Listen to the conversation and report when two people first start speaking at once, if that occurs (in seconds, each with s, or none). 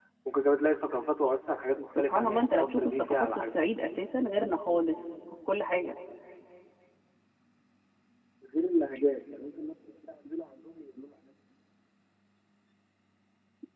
1.9 s